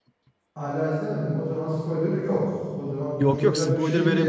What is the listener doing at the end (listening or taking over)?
taking over